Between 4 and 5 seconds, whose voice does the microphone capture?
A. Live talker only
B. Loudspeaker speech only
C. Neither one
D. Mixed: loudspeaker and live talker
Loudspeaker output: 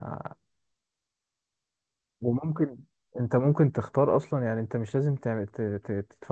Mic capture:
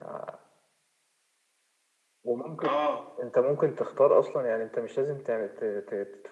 B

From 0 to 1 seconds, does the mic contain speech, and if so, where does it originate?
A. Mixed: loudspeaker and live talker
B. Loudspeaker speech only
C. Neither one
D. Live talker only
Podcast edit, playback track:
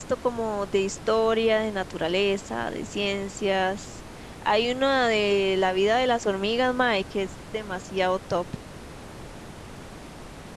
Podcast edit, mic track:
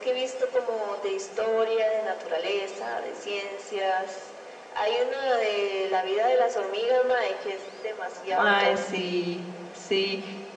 B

